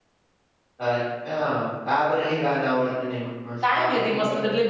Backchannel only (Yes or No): No